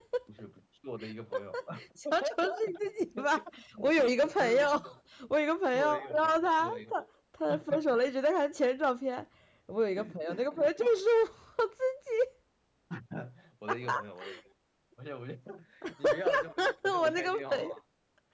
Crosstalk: present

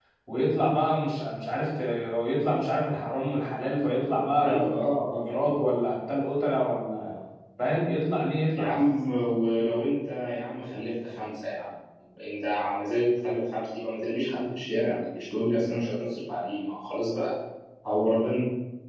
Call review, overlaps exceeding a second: none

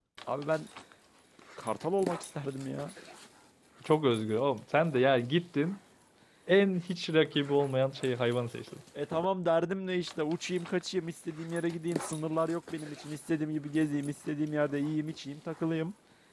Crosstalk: none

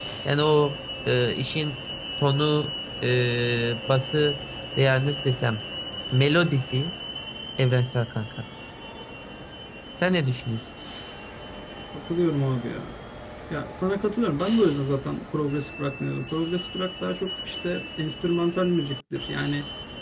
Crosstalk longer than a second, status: none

